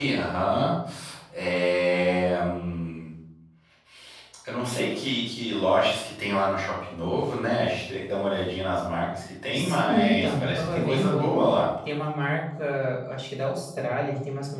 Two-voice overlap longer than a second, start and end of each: 9.5-11.3

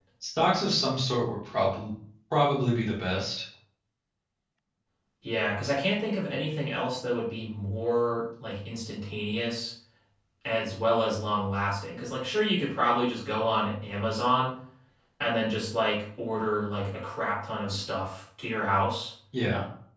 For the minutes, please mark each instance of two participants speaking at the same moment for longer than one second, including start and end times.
none

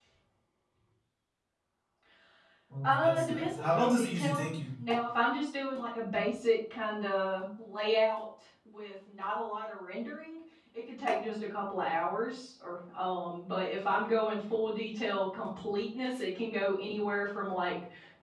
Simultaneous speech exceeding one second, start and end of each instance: 2.9-4.6

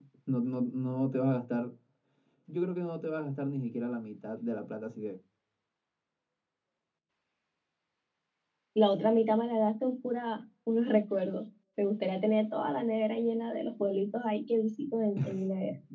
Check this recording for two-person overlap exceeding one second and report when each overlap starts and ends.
none

